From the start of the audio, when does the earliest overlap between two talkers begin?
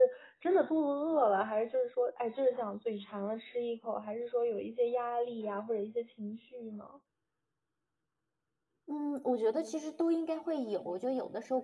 none

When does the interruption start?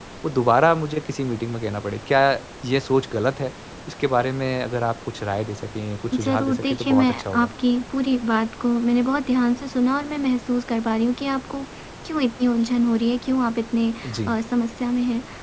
6.1 s

